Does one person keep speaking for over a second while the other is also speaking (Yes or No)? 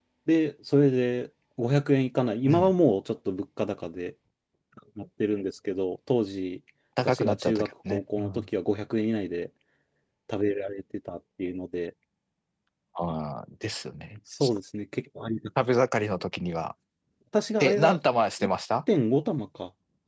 Yes